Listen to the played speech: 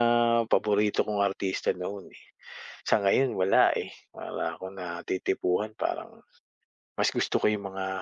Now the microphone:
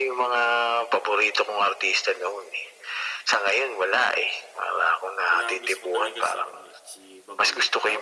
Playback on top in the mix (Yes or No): Yes